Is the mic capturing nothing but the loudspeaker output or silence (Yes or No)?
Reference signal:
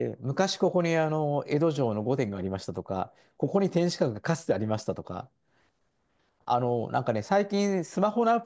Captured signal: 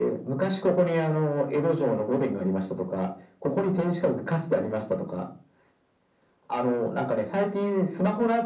Yes